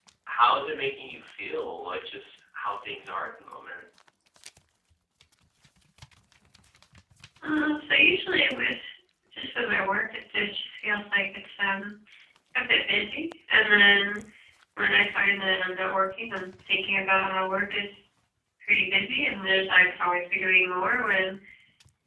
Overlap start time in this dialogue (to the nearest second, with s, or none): none